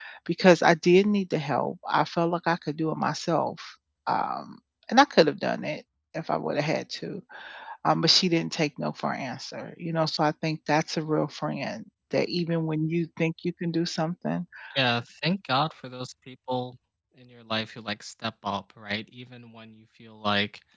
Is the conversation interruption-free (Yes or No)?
Yes